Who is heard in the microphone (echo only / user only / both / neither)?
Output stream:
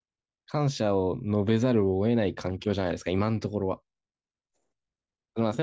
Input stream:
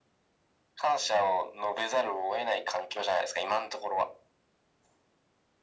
echo only